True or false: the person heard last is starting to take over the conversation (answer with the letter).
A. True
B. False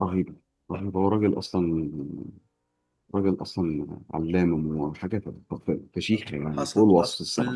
A